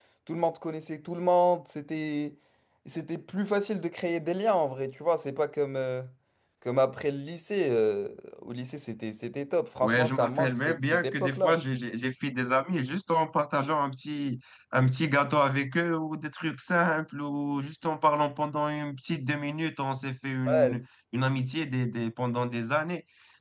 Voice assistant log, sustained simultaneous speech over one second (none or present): present